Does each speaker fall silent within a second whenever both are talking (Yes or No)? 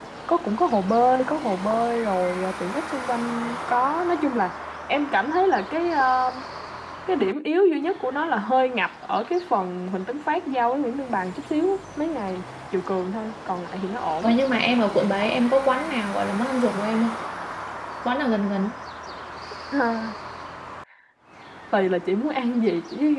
Yes